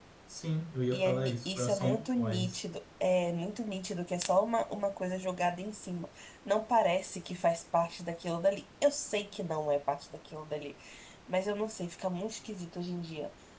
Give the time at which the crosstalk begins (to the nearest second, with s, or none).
1 s